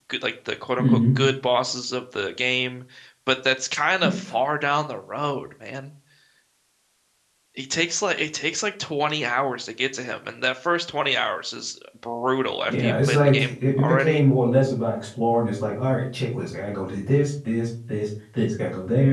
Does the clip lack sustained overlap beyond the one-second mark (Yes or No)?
No